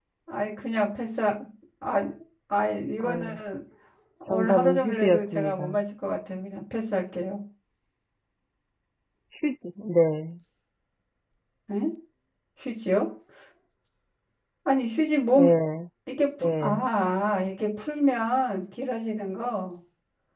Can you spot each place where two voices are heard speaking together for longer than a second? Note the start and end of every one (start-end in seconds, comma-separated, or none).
4.3-5.8